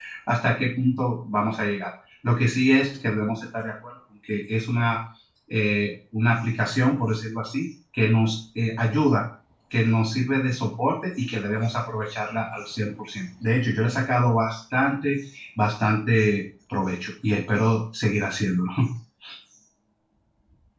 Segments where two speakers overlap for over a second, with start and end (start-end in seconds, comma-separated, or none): none